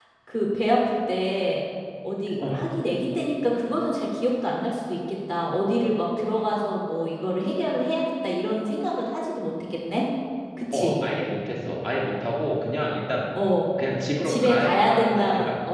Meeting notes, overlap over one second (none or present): present